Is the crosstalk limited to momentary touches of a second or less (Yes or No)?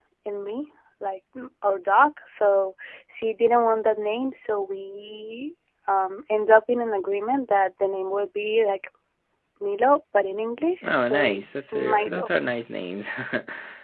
No